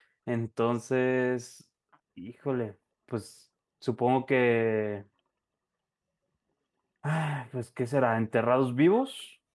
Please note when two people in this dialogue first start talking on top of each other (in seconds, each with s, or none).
none